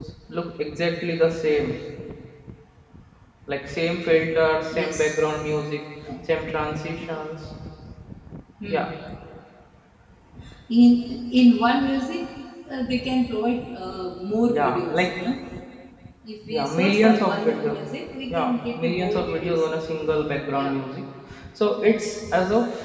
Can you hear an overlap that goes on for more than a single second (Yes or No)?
Yes